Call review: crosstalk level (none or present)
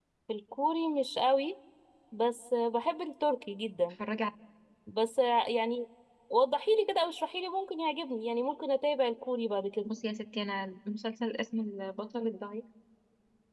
none